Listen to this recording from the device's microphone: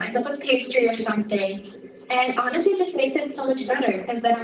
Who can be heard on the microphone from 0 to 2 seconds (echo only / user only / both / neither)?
echo only